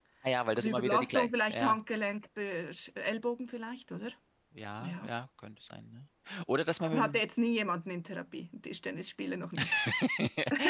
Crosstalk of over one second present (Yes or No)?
Yes